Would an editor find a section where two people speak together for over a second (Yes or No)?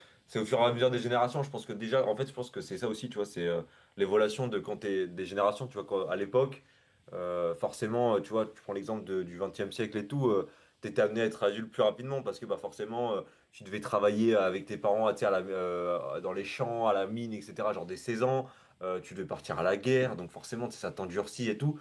No